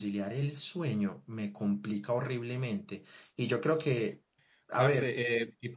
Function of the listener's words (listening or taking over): taking over